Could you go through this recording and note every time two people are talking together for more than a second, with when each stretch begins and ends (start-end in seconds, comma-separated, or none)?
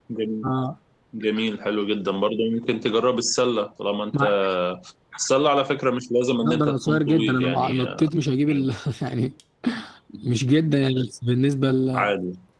6.4-8.1